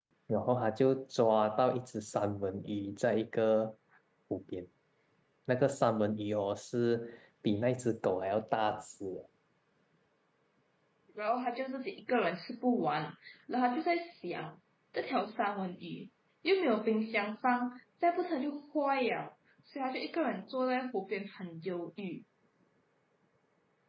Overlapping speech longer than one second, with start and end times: none

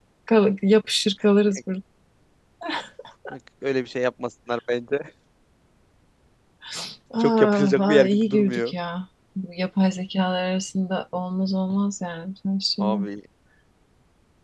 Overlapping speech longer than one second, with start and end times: 7.2-8.7

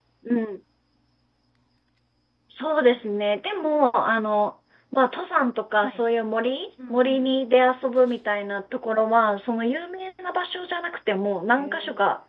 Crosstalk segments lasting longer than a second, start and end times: none

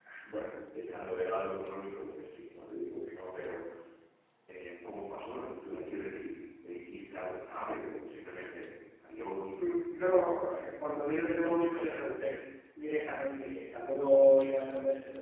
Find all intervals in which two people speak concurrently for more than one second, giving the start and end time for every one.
none

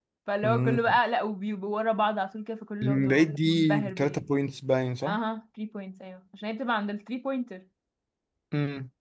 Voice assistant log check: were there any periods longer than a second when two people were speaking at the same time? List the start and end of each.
2.8-4.2

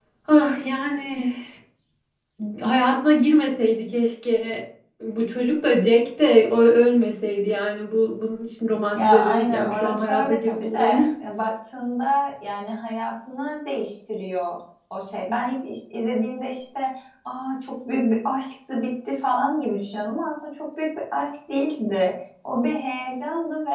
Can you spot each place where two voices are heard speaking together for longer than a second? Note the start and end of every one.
8.9-11.0

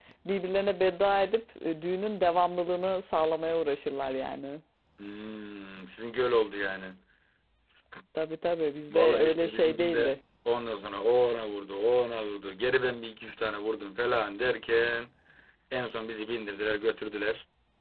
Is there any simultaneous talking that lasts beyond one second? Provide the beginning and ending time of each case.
8.9-10.1

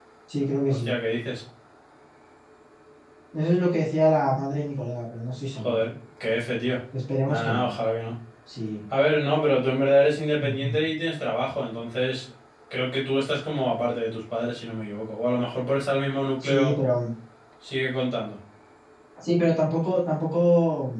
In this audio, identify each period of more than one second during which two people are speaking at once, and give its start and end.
none

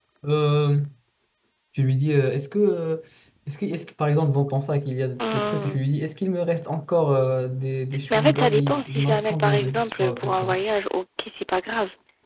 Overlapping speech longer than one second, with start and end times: 8.1-10.6

